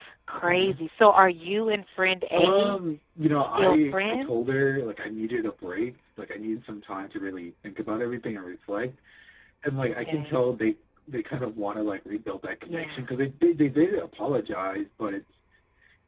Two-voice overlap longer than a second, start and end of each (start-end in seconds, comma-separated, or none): 3.3-4.6